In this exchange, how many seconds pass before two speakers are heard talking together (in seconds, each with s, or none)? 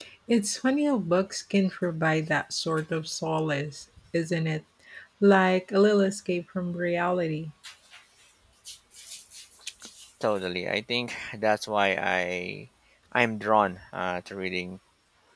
none